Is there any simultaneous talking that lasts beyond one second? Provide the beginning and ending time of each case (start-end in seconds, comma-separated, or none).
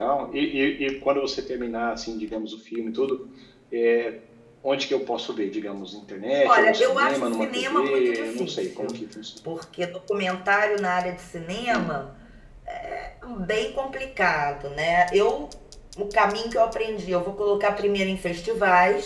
6.4-9.0